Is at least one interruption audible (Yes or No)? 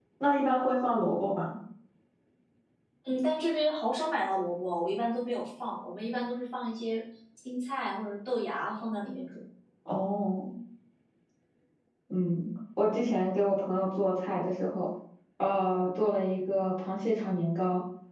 No